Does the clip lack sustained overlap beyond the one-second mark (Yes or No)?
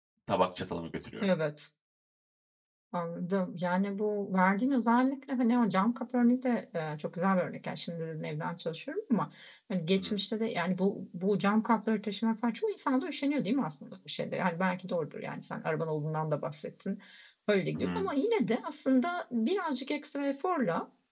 Yes